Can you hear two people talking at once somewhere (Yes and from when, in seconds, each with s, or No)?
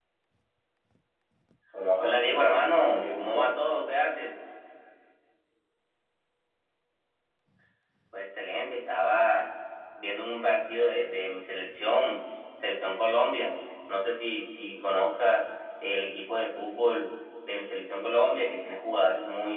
Yes, from 2.0 s